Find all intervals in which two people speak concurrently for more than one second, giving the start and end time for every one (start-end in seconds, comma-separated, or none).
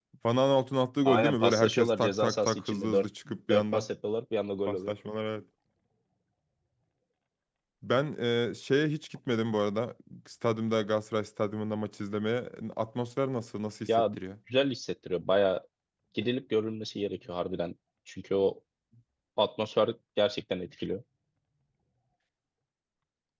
1.1-3.1